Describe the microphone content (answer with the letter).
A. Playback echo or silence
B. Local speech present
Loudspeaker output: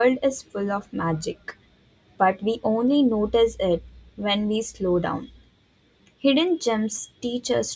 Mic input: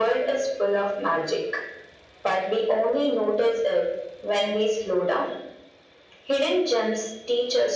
A